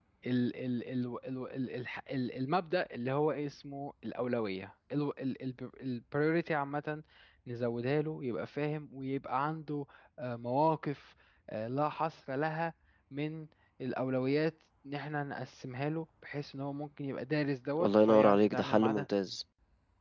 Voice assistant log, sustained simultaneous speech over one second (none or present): present